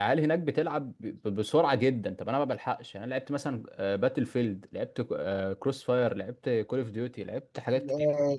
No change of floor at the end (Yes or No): No